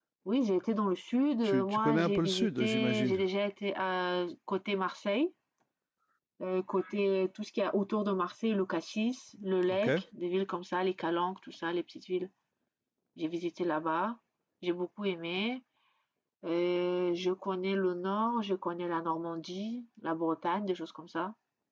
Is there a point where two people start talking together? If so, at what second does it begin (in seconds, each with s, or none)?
1.4 s